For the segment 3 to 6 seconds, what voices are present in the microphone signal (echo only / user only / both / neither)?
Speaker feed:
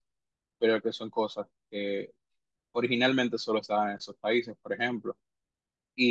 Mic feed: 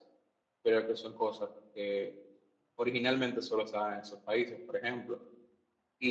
echo only